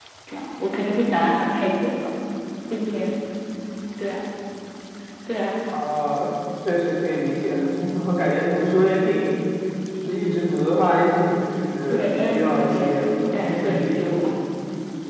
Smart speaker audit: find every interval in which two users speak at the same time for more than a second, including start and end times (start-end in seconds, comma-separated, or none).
11.9-14.2